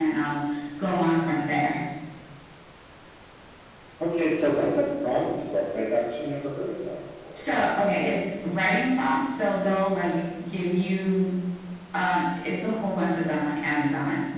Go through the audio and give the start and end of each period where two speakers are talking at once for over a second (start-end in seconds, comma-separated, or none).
none